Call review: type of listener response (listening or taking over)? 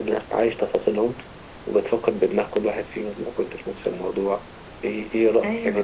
listening